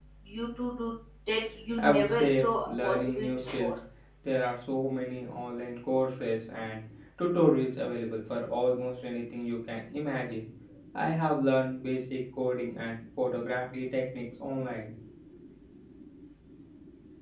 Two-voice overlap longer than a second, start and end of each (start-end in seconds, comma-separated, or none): 1.8-3.7